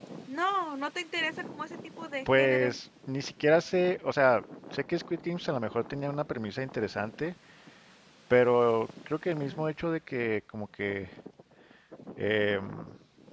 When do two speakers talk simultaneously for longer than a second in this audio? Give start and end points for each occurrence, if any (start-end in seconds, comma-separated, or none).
none